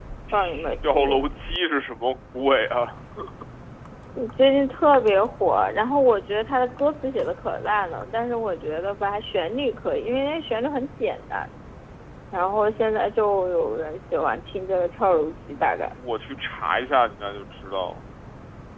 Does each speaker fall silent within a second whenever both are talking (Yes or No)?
Yes